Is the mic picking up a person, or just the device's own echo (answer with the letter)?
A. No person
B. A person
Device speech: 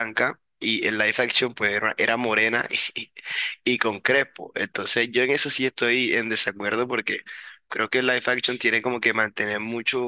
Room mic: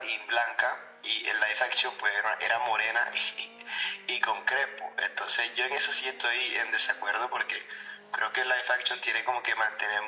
A